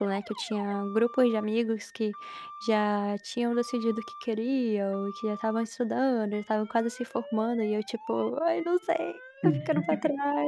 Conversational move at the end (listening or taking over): listening